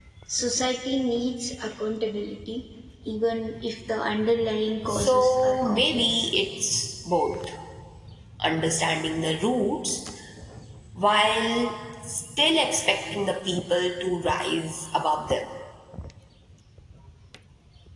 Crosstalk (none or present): present